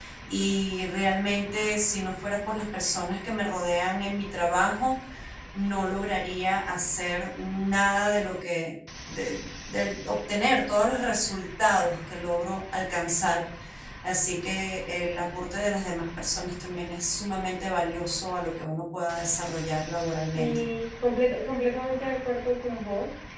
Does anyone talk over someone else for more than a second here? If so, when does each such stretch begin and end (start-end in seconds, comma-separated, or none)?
none